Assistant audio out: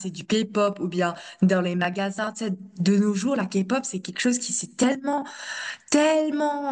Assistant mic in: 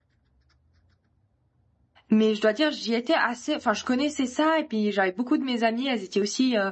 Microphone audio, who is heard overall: user only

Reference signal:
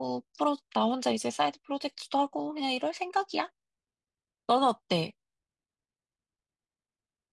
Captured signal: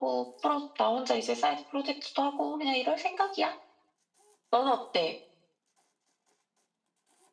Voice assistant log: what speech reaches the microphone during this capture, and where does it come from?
echo only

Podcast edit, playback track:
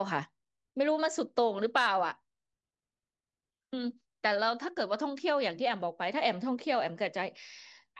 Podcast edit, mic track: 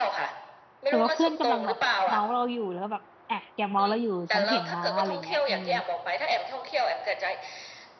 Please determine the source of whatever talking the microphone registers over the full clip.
both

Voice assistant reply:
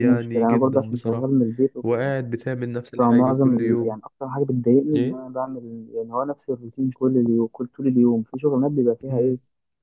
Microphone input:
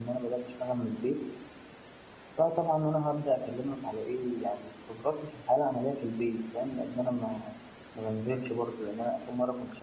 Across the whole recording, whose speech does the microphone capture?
user only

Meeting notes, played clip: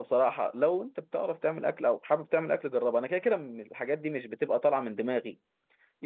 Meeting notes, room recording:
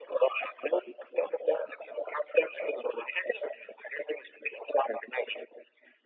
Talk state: echo only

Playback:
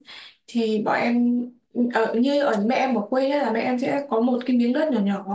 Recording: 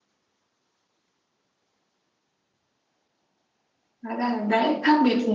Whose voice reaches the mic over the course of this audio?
user only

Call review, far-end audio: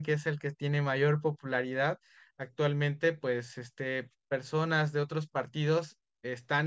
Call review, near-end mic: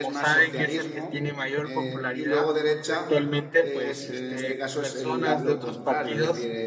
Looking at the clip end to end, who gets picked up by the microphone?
both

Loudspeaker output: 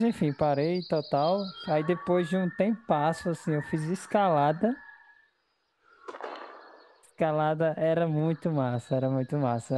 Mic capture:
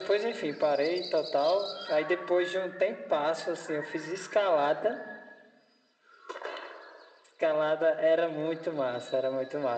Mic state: echo only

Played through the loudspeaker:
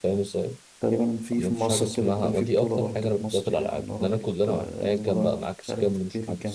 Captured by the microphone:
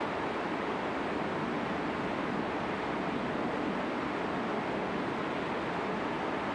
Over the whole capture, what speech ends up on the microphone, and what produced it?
neither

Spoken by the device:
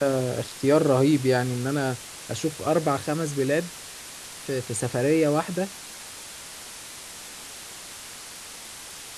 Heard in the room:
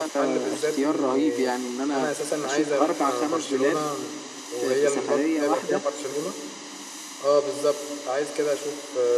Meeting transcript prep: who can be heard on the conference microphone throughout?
both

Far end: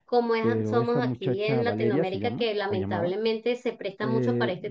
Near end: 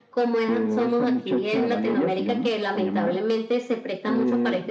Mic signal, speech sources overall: echo only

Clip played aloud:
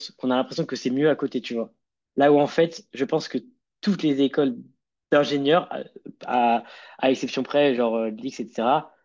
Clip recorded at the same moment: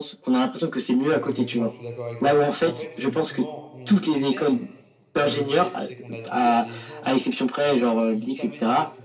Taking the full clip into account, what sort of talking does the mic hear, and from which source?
both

